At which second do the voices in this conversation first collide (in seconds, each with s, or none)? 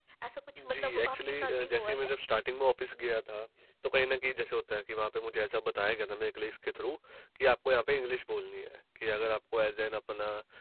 0.6 s